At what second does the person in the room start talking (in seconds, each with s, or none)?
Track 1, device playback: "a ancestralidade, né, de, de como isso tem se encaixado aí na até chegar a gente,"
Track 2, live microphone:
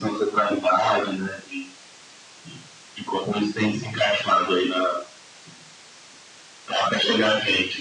none